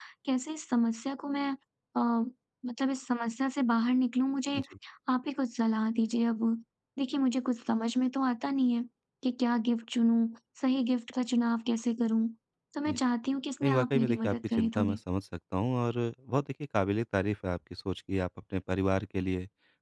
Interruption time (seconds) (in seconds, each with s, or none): 13.6 s